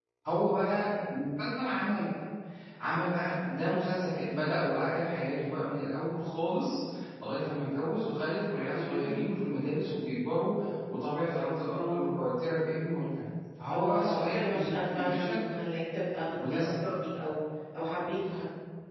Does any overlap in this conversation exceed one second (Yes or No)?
Yes